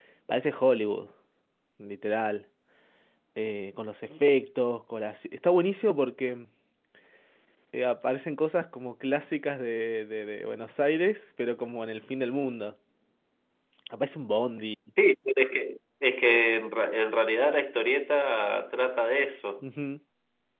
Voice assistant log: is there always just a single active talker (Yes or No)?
Yes